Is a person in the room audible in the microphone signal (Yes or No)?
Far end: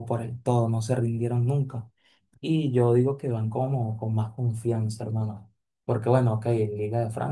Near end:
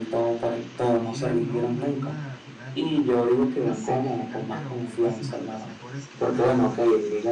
Yes